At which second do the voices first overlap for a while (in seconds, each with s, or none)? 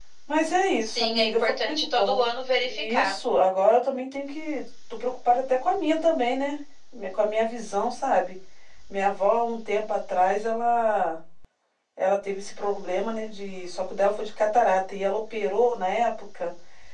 0.8 s